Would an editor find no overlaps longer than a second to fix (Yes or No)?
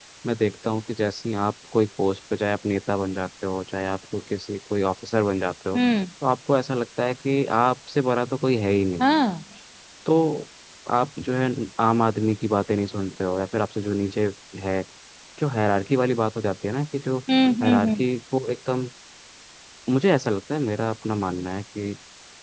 Yes